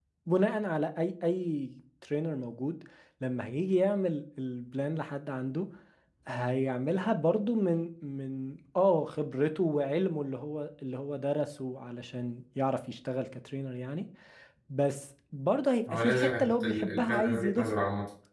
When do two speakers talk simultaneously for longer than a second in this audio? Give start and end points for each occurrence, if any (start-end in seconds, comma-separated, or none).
15.9-17.7